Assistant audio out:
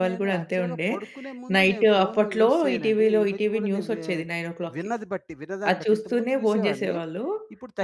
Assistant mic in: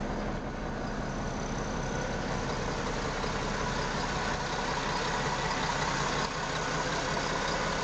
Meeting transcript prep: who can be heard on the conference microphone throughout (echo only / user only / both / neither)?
neither